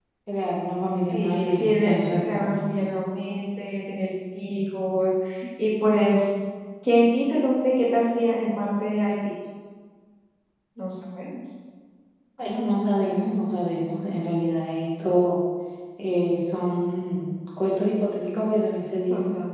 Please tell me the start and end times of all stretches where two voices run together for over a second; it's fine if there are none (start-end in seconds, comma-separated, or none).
1.1-2.7